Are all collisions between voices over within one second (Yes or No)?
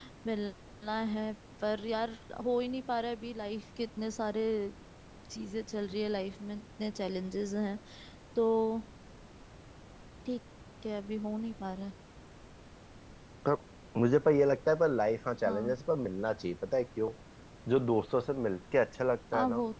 Yes